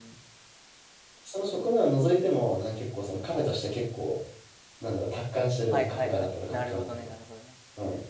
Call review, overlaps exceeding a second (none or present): present